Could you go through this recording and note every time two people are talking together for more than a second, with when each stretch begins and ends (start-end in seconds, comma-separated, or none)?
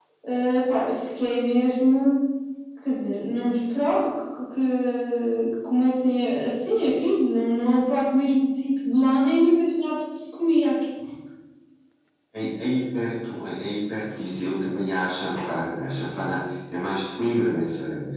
none